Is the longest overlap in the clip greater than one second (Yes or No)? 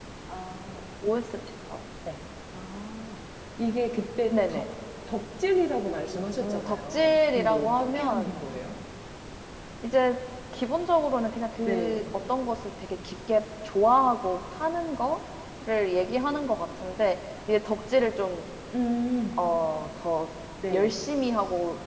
Yes